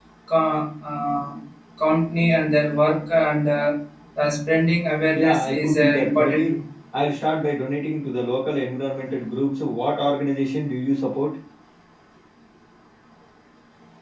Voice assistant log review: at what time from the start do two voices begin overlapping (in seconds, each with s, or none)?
5.1 s